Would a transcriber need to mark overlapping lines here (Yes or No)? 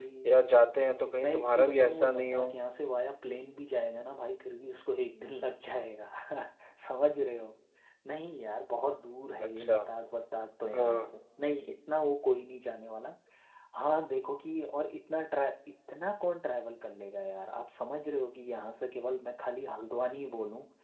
Yes